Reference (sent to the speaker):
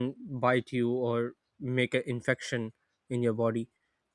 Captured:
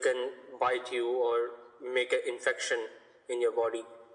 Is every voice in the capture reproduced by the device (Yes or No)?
Yes